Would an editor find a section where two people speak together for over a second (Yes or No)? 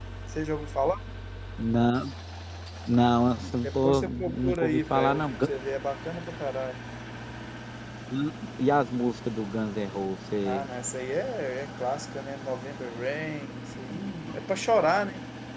Yes